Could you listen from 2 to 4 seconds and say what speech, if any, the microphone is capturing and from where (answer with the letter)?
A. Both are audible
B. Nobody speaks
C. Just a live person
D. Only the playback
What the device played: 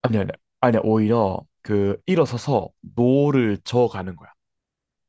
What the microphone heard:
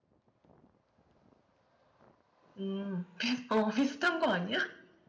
C